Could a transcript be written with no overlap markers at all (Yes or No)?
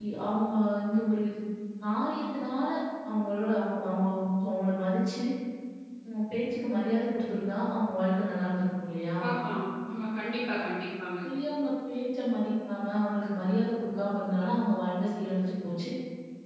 Yes